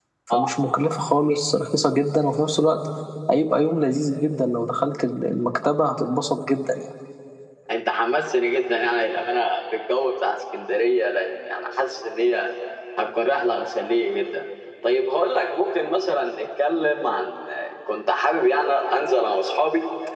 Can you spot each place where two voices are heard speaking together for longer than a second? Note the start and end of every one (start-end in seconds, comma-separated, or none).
none